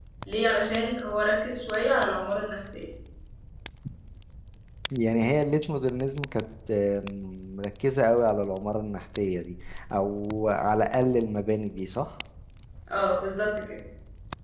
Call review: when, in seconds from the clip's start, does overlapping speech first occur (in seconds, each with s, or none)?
none